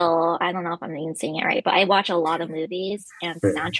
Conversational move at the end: listening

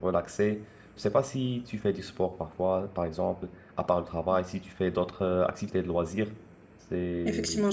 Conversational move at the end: taking over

